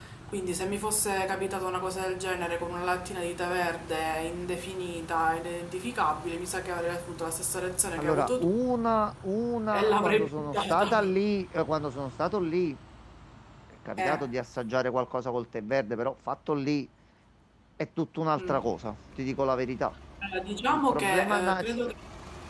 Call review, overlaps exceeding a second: present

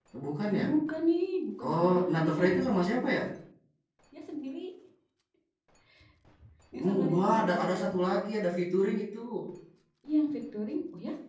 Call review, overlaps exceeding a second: present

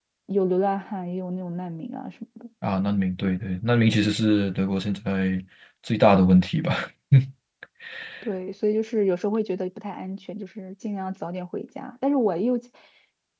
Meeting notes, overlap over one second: none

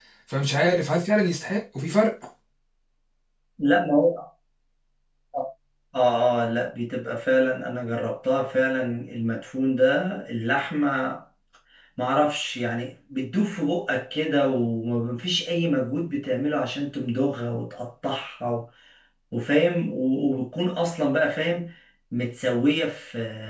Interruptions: none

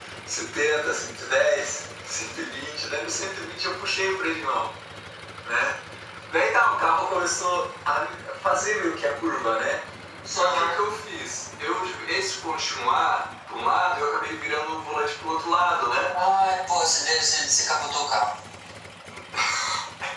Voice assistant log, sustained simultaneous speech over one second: none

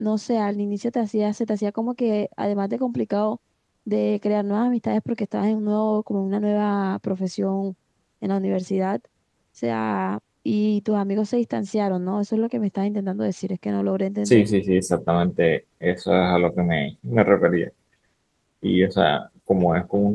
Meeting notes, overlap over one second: none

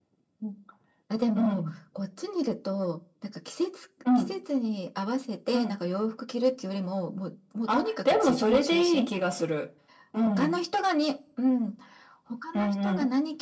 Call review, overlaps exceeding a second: present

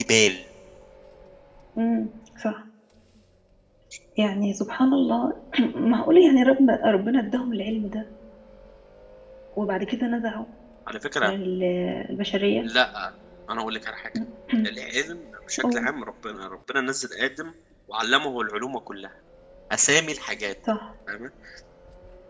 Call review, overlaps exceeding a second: none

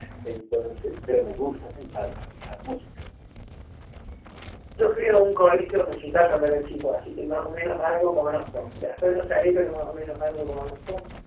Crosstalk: none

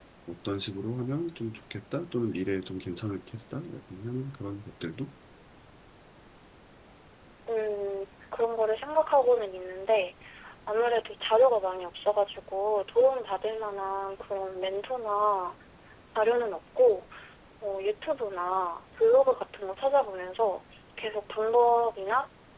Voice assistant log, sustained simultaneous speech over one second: none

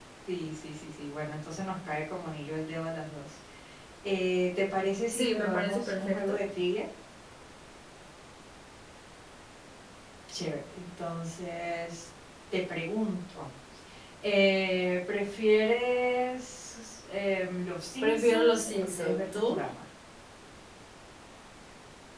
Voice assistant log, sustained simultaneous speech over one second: present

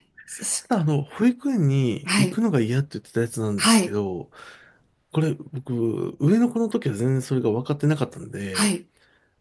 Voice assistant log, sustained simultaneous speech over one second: none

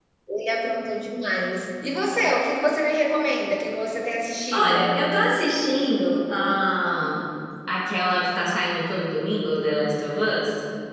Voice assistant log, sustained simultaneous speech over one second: none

